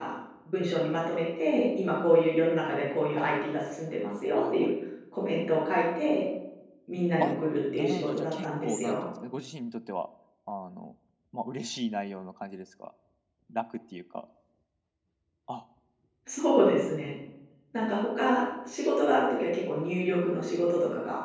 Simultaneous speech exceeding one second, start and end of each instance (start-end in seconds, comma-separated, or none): 7.7-9.0